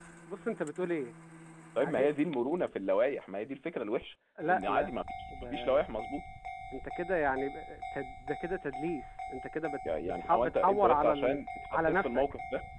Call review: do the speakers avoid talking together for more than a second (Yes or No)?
No